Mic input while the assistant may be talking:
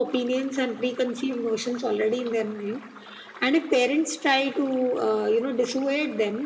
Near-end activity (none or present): none